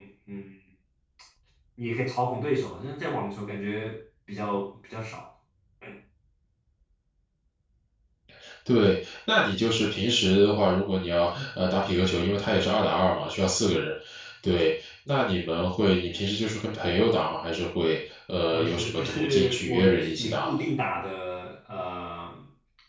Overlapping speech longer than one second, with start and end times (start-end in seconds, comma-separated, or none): 18.5-20.5